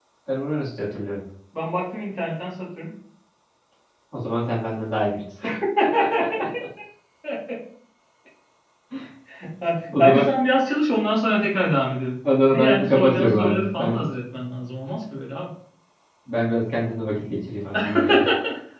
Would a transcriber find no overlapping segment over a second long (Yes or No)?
No